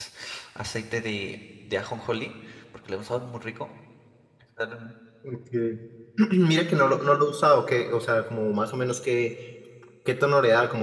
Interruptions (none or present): none